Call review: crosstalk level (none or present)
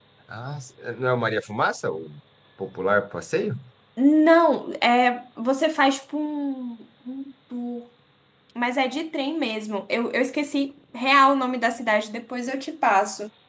none